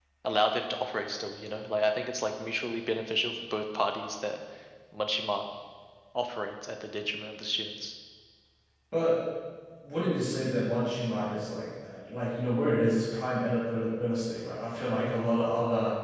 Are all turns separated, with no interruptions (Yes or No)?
Yes